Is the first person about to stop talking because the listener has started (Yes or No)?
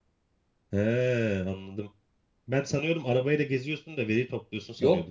Yes